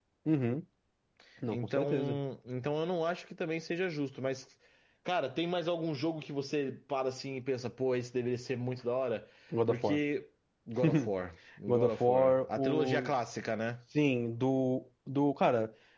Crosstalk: present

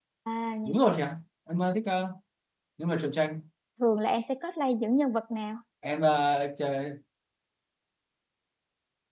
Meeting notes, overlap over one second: none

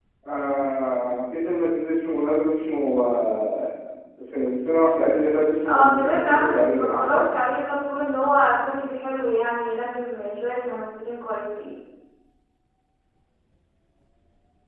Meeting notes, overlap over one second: present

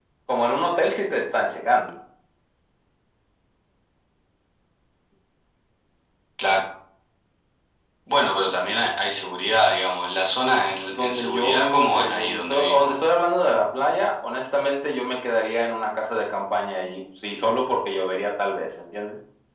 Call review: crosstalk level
present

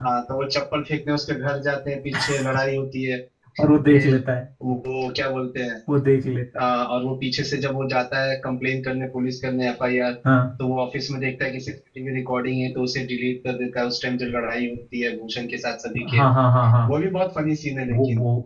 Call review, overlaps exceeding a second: none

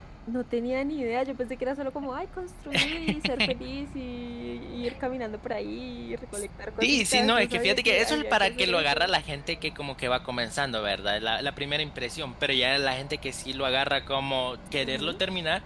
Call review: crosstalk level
present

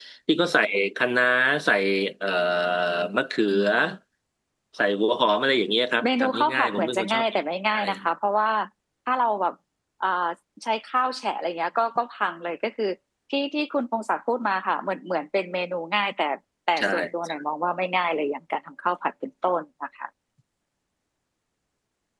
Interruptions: present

